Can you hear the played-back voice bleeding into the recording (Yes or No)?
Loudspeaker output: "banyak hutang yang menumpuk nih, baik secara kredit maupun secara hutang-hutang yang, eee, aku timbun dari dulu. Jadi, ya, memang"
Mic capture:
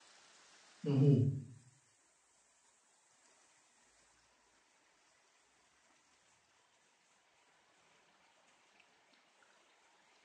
No